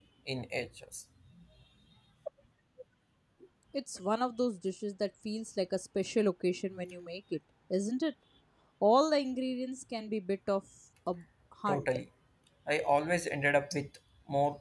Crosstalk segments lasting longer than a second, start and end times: none

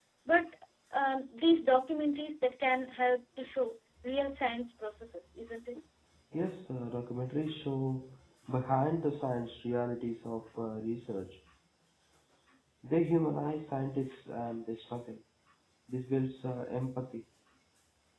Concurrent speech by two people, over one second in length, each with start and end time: none

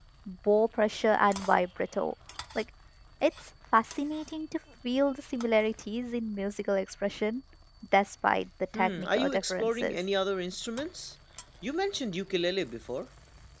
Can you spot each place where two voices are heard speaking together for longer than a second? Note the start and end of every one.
8.7-10.0

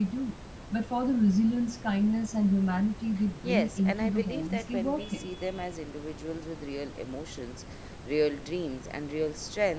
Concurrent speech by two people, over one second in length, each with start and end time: 3.4-5.3

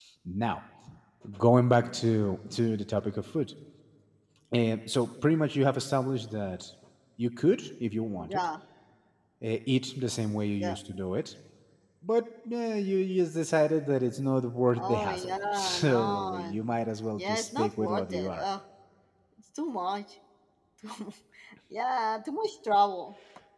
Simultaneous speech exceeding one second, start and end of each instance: 14.8-16.6, 17.2-18.4

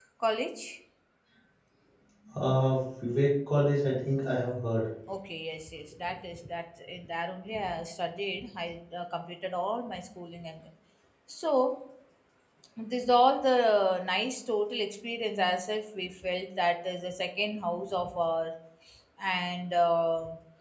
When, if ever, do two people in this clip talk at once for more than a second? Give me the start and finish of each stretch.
none

